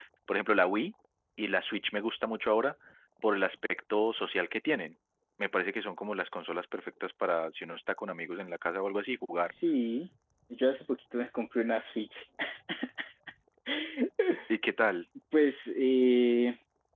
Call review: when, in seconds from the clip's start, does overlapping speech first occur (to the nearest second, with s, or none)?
none